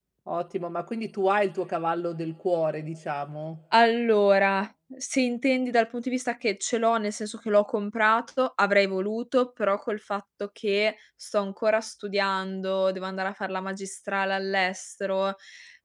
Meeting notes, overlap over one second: none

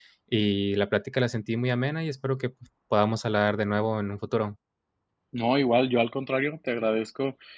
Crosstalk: none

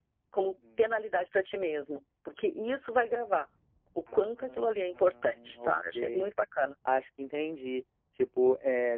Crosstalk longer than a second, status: present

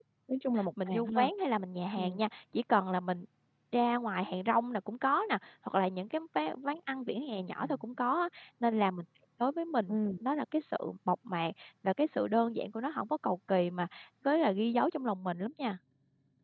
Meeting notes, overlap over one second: none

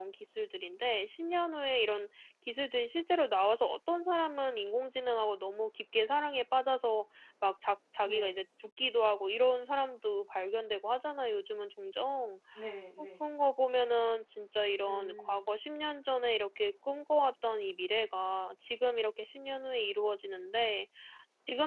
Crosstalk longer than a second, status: none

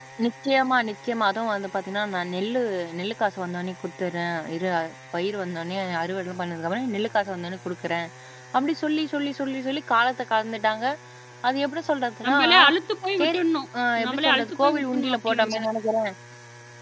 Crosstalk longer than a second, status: present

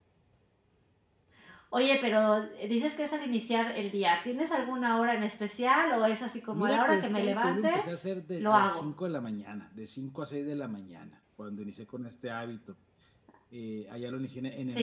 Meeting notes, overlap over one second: present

